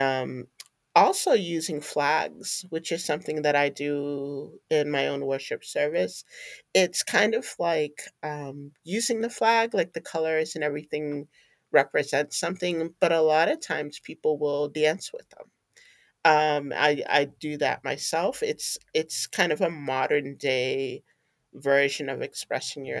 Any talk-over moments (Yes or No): No